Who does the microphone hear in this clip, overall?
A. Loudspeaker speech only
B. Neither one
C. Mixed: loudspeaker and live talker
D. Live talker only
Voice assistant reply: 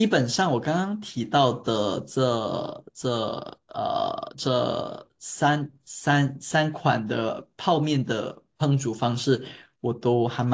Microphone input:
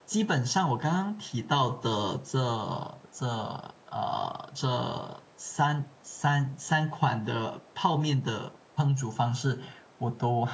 A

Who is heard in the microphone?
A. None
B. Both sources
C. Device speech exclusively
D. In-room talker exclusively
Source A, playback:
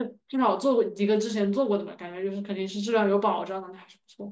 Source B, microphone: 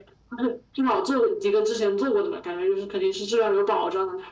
C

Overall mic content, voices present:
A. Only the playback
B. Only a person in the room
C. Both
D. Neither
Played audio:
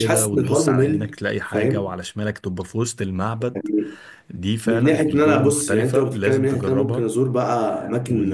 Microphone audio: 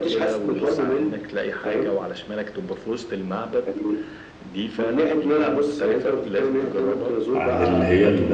C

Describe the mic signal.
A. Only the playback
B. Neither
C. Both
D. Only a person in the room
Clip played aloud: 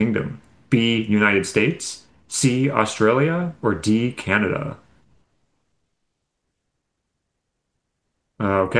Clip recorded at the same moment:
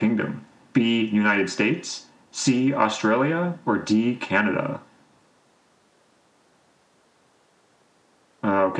A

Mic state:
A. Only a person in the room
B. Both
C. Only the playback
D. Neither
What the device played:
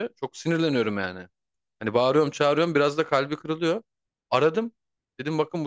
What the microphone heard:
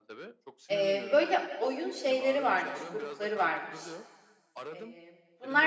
B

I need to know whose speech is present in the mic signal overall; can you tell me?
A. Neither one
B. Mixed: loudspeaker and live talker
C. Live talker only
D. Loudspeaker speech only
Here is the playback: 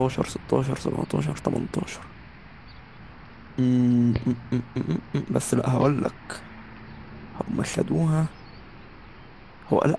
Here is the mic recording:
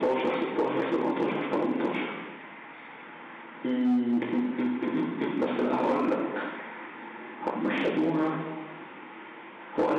D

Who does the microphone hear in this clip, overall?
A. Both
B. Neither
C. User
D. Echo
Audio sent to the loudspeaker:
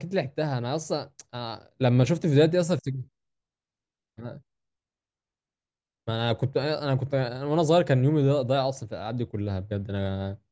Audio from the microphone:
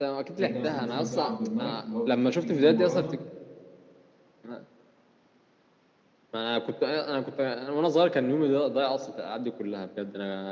A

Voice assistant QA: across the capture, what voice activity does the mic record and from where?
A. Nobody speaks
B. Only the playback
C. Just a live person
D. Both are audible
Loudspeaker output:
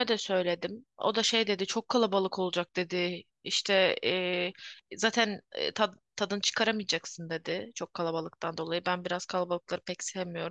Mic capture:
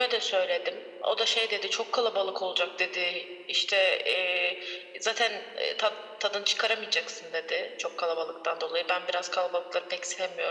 B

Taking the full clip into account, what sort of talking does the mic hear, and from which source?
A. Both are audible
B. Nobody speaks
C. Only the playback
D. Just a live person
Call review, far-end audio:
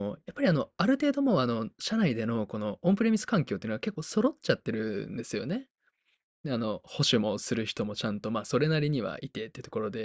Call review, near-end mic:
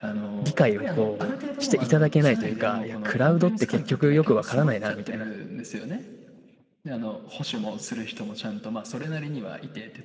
A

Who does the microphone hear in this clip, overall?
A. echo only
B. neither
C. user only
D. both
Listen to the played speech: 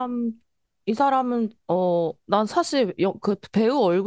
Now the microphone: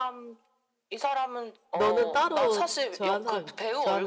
D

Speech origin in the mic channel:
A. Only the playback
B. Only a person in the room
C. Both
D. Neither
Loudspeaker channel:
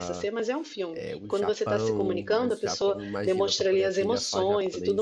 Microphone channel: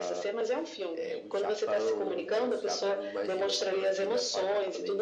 A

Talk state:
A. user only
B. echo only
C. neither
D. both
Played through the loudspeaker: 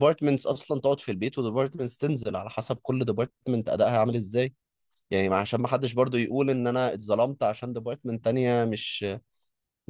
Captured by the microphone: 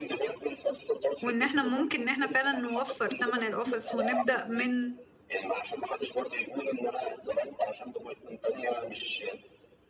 D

